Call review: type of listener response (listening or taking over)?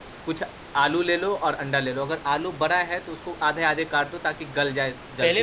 taking over